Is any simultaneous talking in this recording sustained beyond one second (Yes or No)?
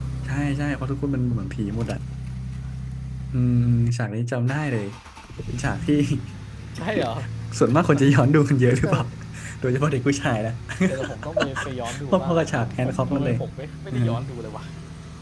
Yes